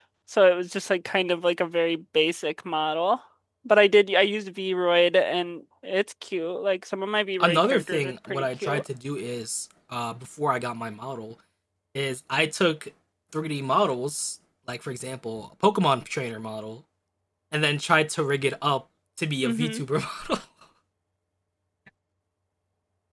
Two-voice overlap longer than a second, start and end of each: 7.4-8.8

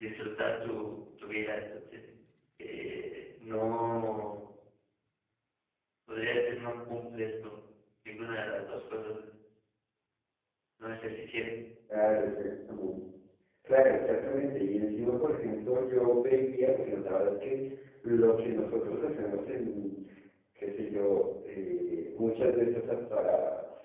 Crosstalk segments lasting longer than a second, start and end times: none

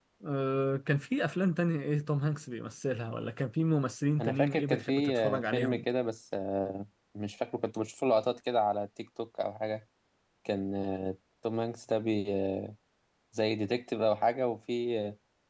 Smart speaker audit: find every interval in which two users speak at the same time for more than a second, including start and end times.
4.2-5.8

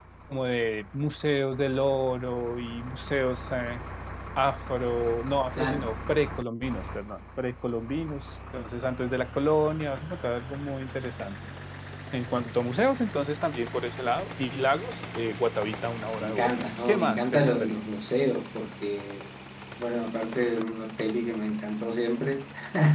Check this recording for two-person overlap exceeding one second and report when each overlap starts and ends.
16.2-17.8

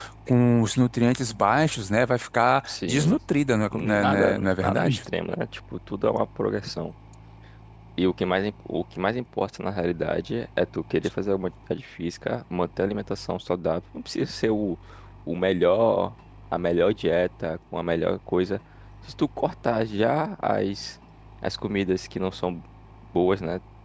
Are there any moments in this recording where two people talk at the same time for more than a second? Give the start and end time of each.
3.7-5.0

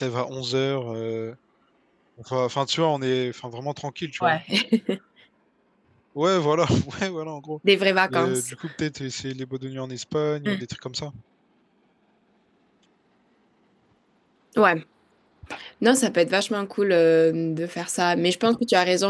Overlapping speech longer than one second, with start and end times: none

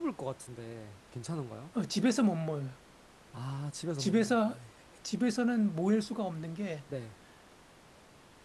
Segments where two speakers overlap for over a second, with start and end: none

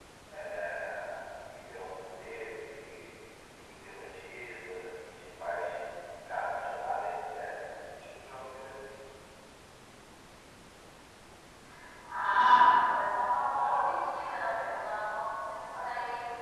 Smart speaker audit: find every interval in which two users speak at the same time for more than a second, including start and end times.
none

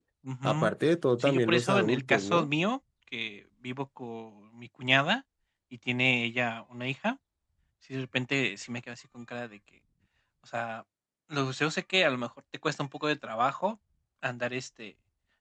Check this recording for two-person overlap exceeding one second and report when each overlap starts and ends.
1.2-2.5

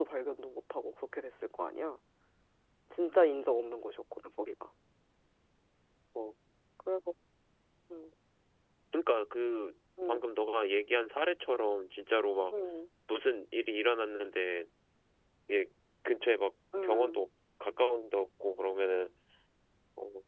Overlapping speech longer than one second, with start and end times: none

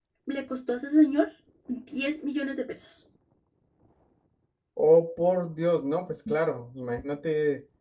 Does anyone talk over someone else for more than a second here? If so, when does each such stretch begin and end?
none

